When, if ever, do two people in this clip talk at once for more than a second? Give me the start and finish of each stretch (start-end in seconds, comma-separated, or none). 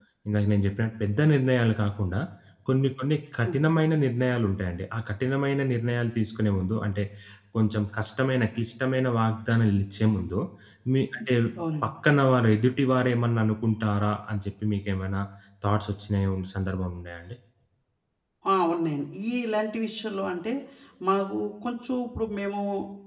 none